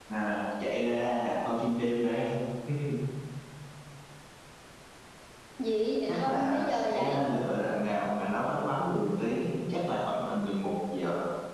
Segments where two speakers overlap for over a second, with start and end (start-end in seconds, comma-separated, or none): 6.1-7.3